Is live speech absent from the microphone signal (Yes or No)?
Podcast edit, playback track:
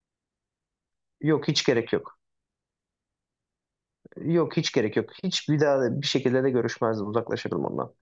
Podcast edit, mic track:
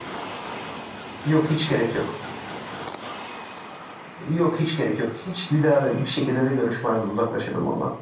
Yes